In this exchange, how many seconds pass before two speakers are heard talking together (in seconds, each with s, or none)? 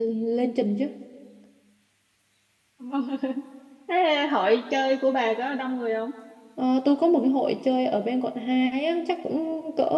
none